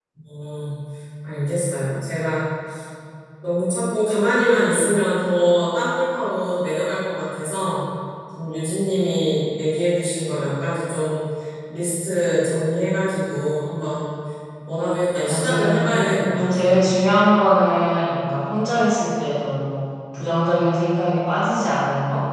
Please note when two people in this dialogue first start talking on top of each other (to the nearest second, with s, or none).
15 s